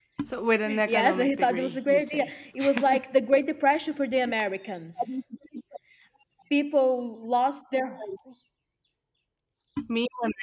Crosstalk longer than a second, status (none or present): present